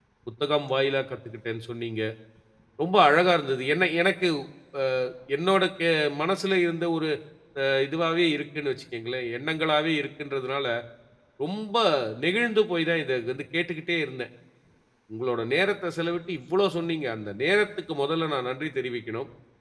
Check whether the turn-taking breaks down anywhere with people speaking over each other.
No

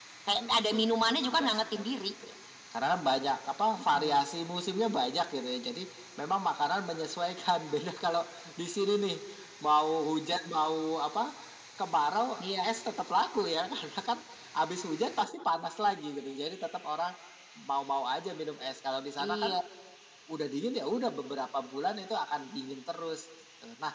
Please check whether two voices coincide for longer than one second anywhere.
Yes, from 0.7 s

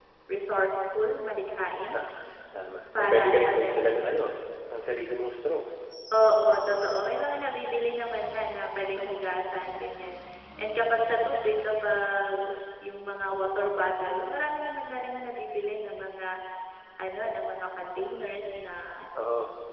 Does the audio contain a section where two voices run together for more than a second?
Yes, from 3.0 s

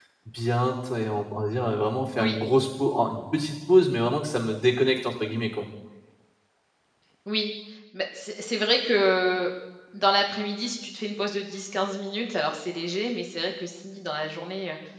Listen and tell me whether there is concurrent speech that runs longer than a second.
No

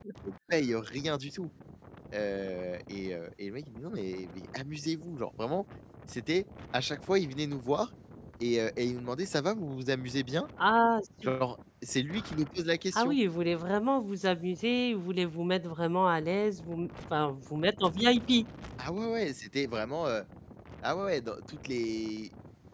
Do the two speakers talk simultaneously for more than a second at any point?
No

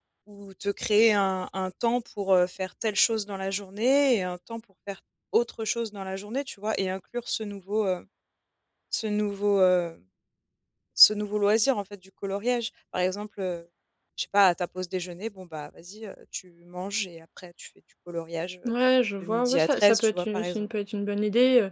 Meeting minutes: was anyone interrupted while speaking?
Yes, from 19.2 s

